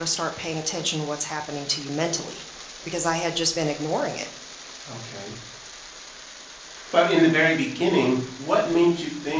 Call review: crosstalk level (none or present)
none